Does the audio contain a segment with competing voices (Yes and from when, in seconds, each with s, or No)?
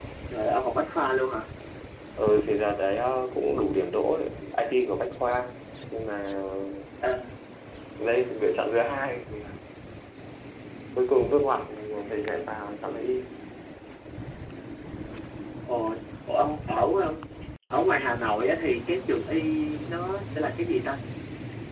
No